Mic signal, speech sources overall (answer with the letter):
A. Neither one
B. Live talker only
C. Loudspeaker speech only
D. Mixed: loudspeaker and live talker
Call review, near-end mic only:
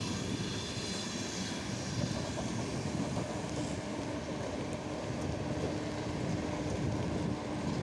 A